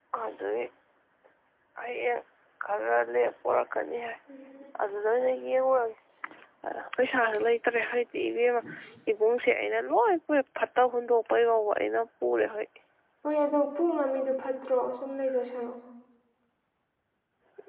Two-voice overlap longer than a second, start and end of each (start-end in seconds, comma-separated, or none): none